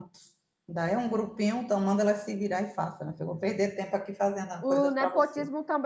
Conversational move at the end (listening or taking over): taking over